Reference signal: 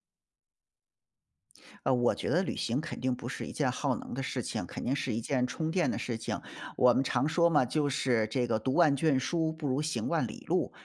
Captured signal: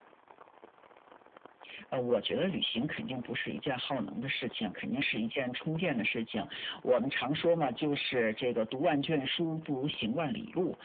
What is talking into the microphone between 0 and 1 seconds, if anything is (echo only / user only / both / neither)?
neither